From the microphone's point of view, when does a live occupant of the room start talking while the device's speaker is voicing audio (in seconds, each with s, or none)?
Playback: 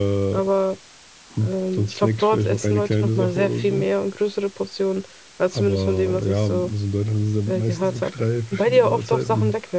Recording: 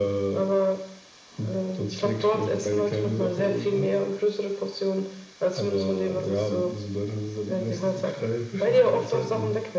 none